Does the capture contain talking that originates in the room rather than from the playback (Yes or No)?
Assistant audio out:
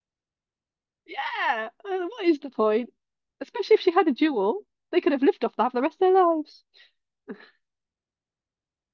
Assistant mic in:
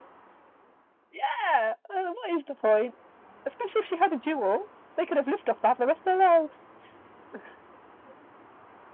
No